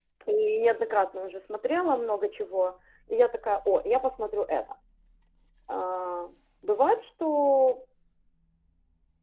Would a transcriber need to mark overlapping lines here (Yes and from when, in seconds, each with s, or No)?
No